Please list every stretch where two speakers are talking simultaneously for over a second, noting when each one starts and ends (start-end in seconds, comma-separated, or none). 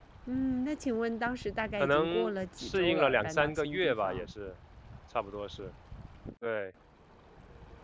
1.8-4.3